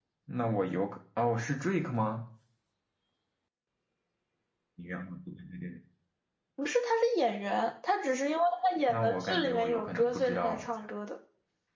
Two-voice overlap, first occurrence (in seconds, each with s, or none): 8.9 s